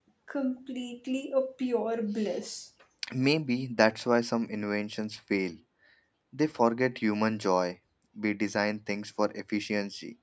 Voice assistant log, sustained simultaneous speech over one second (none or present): none